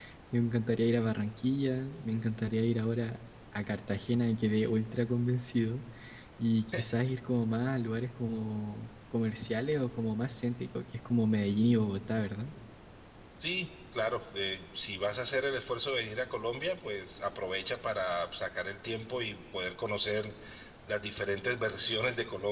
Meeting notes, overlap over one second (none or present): none